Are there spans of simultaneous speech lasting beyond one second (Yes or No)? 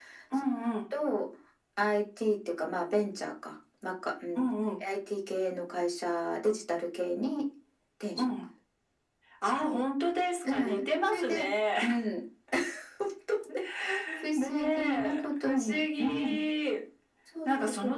Yes